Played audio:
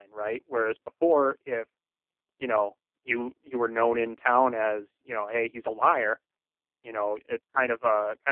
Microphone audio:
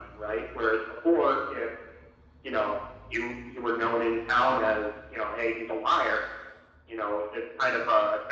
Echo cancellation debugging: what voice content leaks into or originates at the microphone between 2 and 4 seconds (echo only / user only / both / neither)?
echo only